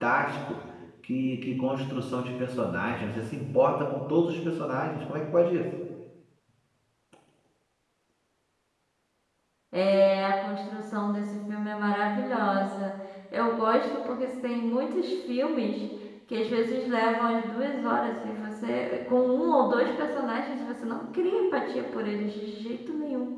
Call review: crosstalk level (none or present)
none